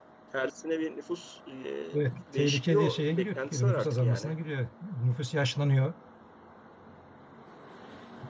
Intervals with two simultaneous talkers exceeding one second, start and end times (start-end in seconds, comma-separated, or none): 2.4-4.3